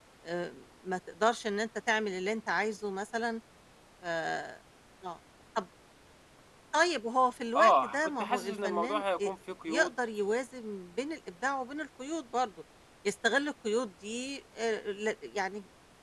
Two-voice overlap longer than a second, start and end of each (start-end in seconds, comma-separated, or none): 7.6-9.3